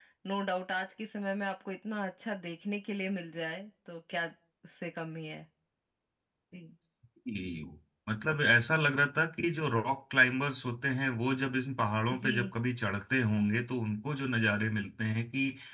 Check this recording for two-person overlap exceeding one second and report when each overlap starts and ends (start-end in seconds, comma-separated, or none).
none